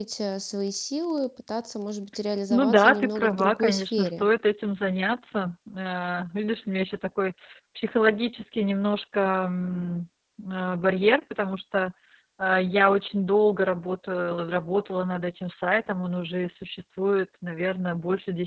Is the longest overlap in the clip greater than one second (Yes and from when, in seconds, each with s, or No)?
Yes, from 2.5 s